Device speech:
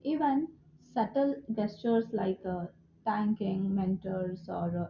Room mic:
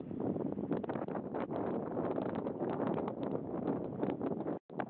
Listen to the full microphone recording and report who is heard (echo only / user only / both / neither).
neither